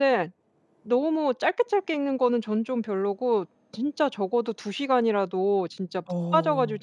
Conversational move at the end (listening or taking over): listening